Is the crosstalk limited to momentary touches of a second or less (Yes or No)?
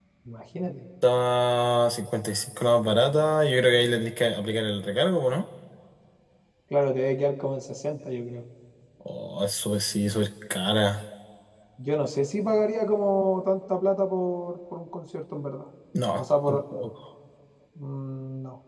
Yes